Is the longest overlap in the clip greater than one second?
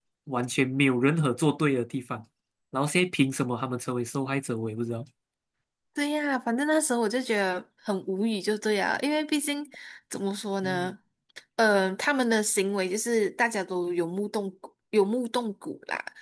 No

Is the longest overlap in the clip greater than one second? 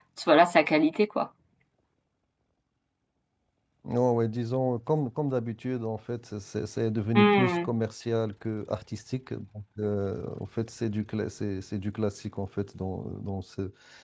No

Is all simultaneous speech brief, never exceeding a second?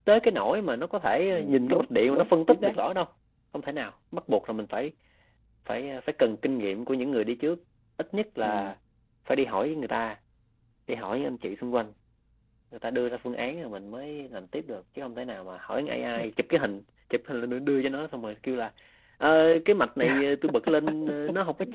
No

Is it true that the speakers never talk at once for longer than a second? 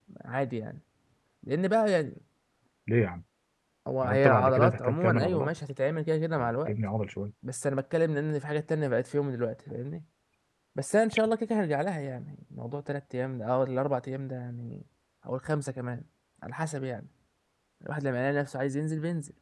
No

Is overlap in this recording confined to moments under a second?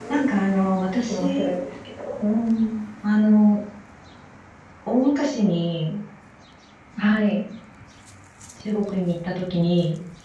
Yes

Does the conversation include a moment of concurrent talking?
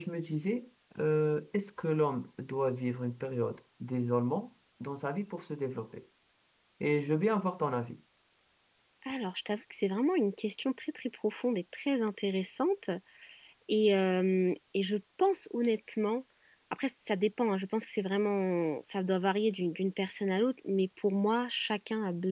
No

